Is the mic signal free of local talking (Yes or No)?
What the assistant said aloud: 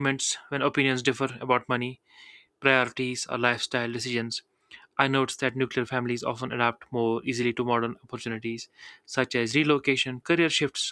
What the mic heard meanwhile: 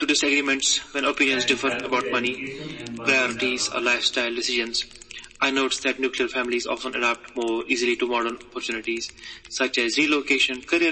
No